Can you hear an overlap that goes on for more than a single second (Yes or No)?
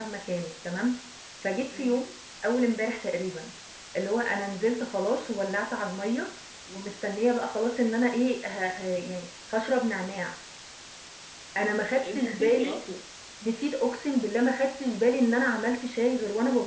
Yes